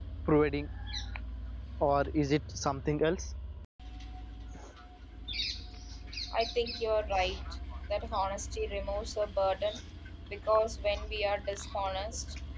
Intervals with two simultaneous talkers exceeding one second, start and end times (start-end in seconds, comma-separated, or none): none